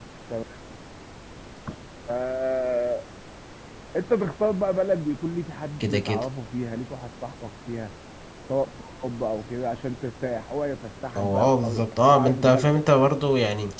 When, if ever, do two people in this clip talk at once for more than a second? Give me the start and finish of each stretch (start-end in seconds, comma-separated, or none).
11.2-12.7